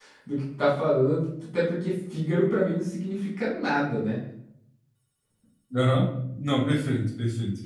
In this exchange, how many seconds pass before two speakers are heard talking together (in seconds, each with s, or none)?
none